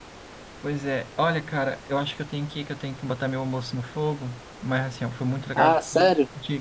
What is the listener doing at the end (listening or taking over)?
listening